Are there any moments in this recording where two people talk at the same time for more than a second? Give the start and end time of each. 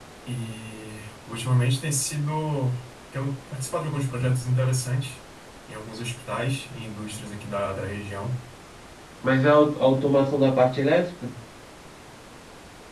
none

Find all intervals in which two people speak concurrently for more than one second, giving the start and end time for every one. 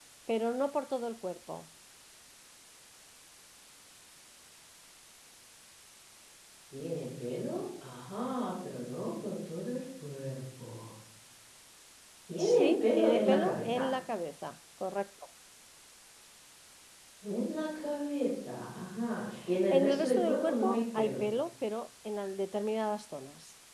12.4-13.9, 19.7-21.2

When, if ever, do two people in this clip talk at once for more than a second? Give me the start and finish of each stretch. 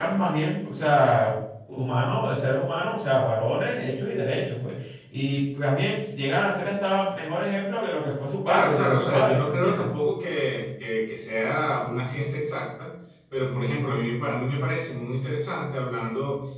8.5-9.9

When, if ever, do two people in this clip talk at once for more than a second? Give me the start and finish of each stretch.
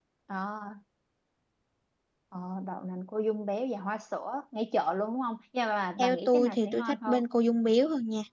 6.0-7.2

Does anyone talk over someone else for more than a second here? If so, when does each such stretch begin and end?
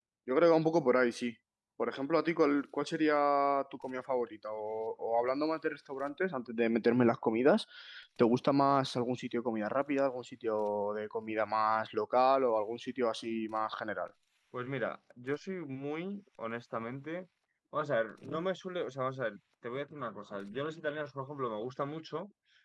none

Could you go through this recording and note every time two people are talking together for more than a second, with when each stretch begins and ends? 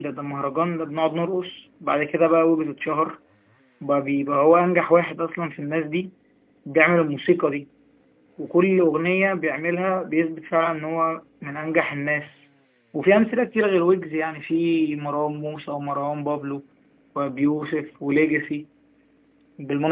none

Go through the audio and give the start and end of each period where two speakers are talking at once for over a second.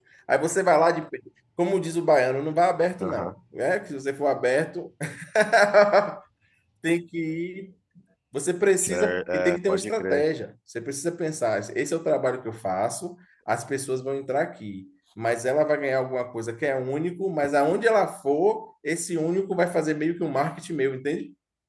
8.8-10.2

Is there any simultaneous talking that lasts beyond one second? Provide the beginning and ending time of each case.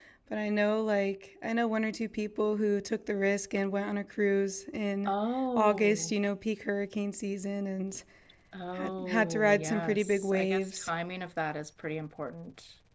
8.7-10.9

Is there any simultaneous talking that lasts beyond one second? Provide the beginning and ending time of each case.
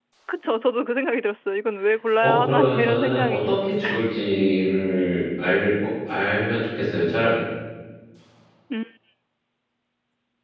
2.2-3.6

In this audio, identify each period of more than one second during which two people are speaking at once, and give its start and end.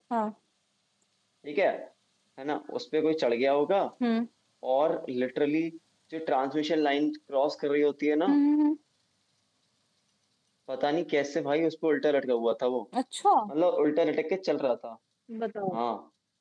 none

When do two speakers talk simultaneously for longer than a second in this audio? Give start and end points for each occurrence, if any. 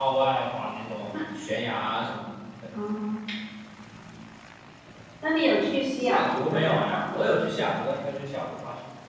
6.0-7.3

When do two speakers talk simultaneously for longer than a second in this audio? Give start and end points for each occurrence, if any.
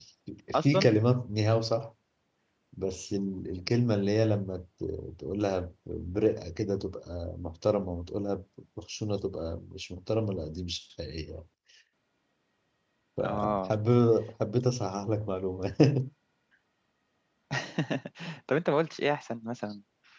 none

